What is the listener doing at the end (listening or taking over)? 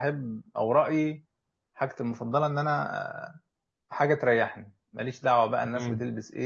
listening